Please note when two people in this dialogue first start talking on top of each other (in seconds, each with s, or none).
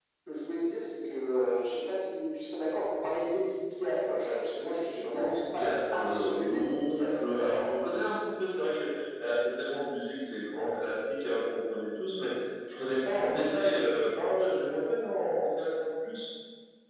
5.2 s